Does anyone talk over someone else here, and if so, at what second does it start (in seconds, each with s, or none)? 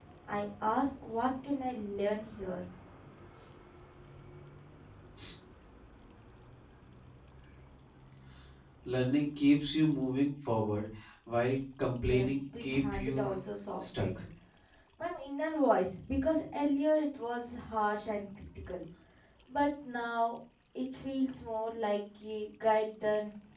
11.9 s